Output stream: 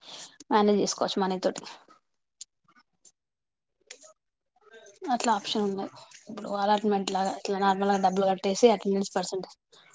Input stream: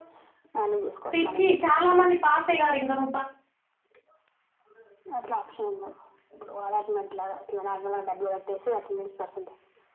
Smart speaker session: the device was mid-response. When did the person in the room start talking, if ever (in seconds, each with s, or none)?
1.1 s